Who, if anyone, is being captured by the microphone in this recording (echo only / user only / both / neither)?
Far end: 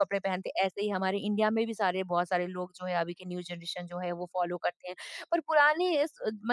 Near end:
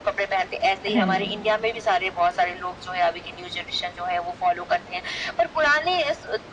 both